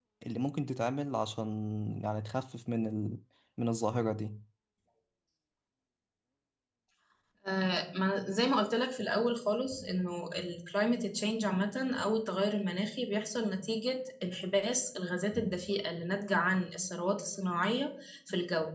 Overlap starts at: none

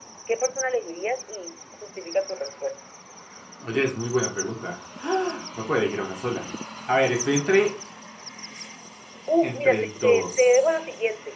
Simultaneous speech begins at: 9.4 s

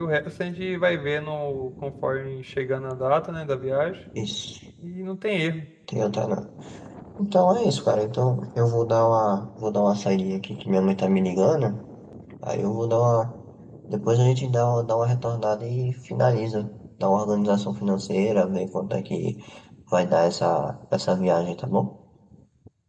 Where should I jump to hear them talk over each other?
none

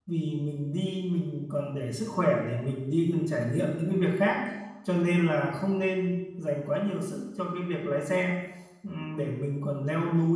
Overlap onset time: none

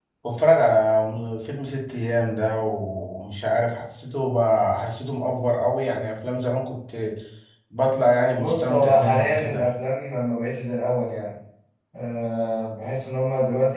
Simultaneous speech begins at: 8.4 s

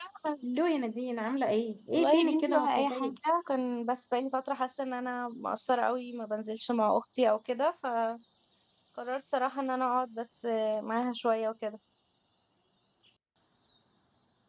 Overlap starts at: 1.9 s

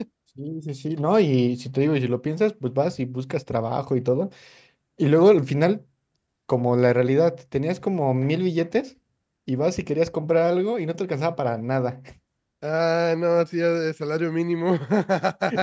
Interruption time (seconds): none

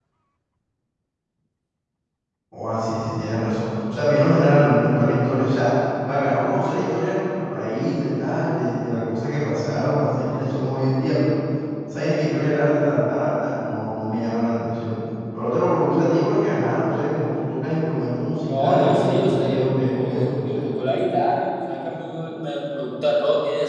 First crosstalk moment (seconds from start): 18.4 s

